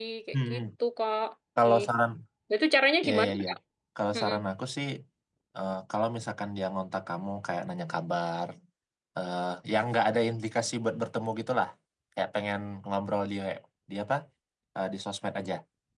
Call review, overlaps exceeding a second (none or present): none